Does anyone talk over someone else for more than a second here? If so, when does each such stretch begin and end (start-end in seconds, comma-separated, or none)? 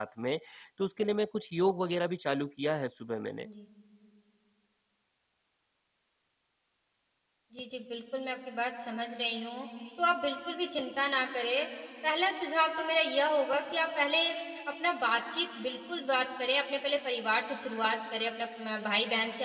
none